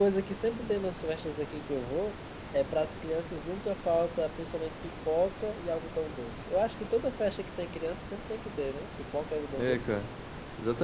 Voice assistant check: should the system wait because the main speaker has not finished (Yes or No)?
No